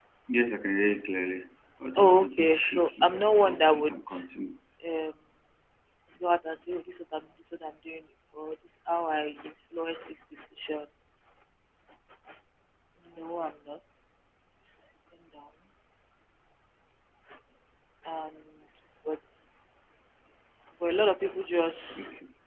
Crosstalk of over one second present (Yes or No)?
Yes